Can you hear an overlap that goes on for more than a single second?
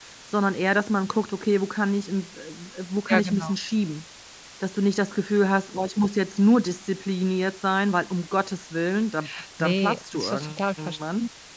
Yes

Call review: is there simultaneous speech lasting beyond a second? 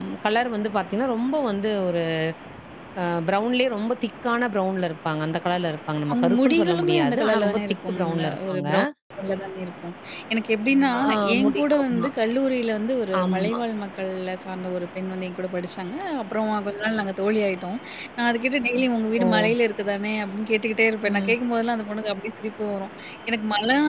Yes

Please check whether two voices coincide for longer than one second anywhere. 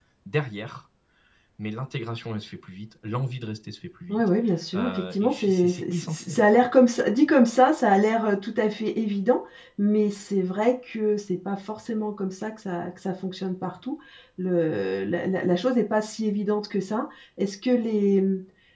Yes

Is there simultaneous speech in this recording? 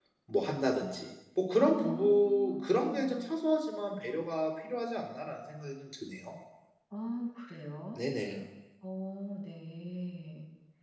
Yes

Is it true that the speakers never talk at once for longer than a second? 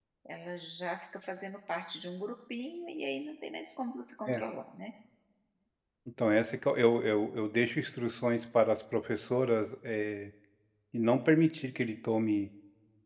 Yes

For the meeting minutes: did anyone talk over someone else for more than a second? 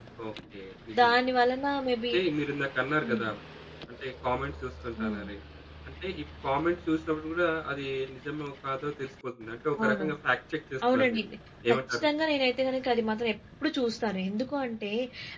No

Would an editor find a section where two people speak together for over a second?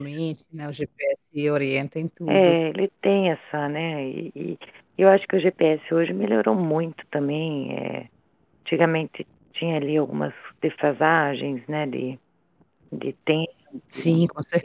No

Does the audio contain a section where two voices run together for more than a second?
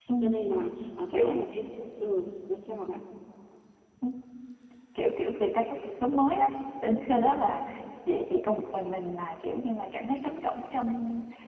No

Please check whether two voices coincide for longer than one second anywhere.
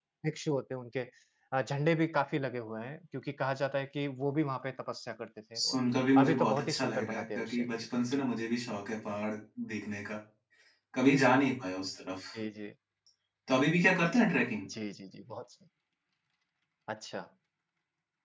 Yes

